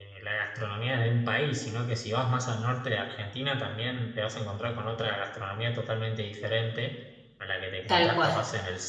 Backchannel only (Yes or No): Yes